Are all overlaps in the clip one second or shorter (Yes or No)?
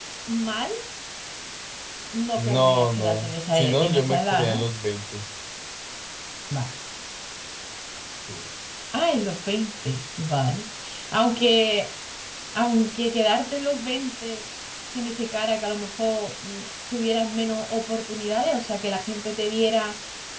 No